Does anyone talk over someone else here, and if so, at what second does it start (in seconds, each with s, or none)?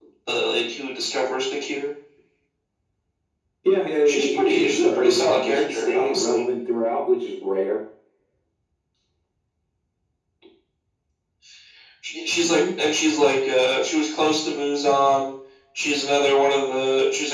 4.0 s